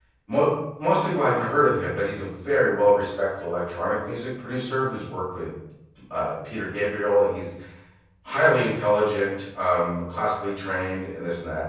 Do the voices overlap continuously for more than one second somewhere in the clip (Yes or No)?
No